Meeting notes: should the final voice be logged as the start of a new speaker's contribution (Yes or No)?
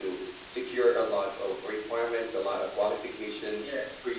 No